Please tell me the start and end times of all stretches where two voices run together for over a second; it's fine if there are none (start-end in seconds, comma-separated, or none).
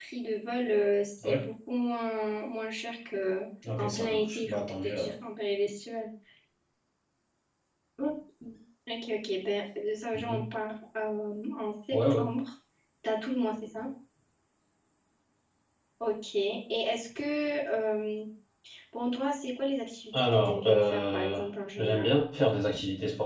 3.8-5.1, 20.1-21.4